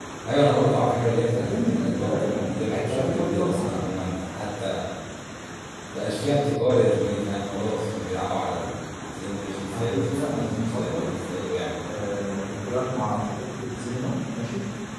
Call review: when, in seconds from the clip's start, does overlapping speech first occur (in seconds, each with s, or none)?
1.4 s